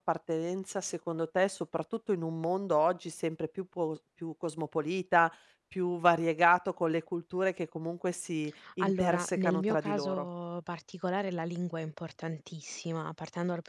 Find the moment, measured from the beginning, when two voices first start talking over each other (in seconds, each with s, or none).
8.8 s